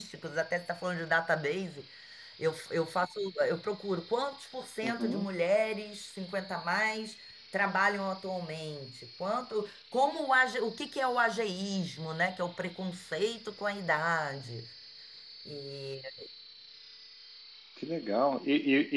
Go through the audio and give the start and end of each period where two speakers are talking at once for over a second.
none

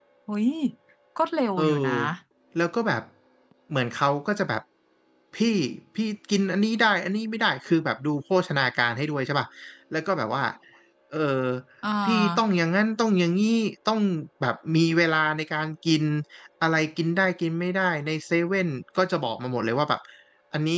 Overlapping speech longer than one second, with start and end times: none

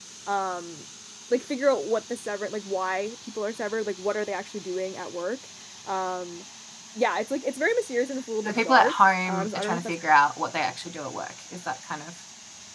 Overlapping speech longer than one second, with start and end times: 8.4-9.9

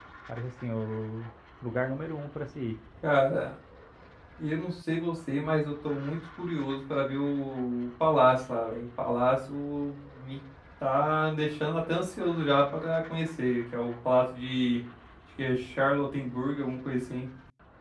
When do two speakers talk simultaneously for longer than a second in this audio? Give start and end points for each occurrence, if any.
none

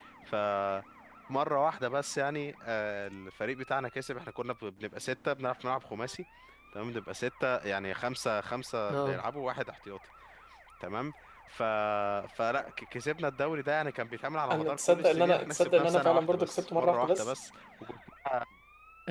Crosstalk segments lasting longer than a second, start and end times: 14.5-17.3

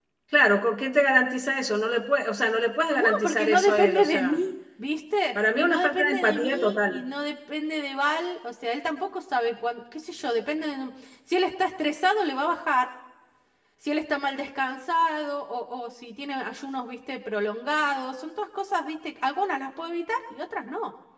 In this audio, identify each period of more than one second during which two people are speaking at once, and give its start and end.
2.9-4.4, 5.5-7.0

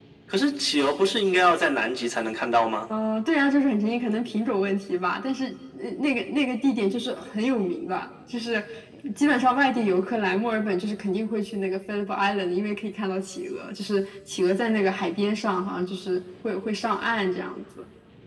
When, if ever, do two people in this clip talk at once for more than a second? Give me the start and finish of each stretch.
none

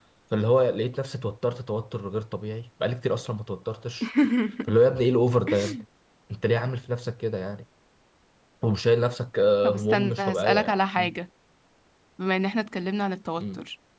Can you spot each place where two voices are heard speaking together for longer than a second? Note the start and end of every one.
9.6-11.1

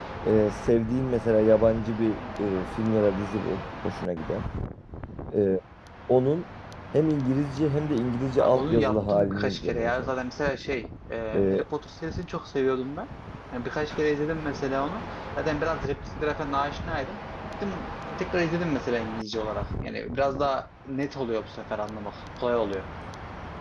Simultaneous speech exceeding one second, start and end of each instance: 8.4-10.1

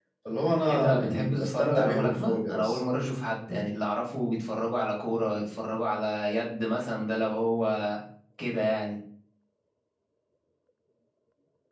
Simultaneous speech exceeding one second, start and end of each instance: 0.7-2.8

